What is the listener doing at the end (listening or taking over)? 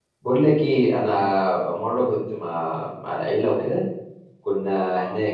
listening